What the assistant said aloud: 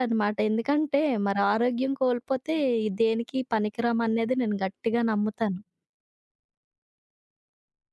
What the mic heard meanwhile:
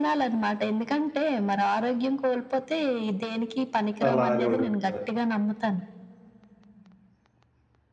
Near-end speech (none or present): present